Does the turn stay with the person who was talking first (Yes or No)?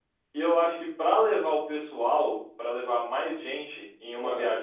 Yes